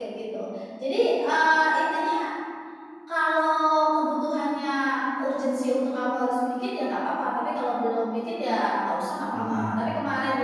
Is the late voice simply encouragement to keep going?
Yes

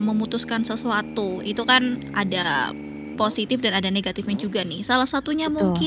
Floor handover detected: No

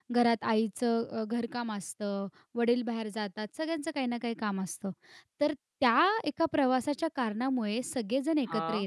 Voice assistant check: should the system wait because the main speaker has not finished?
Yes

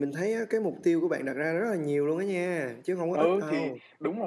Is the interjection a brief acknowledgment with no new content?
No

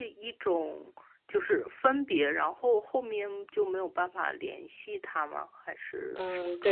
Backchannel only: No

